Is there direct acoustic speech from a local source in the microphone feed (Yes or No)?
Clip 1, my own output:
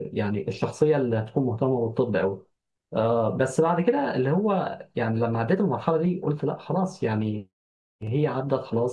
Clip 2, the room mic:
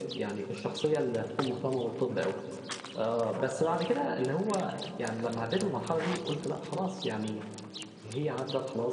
No